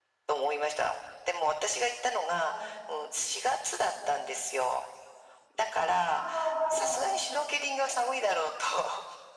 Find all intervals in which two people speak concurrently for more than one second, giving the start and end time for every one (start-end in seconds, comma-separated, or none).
none